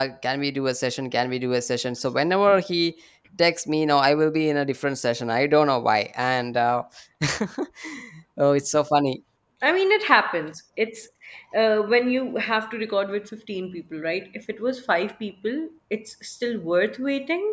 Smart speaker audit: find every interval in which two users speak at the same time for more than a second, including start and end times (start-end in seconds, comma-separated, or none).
none